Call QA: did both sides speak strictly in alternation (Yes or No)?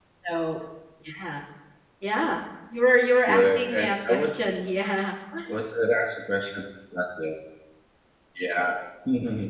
No